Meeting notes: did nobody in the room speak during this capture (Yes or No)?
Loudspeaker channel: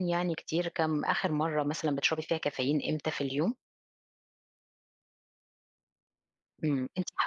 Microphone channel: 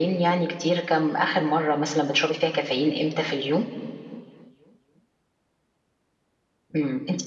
Yes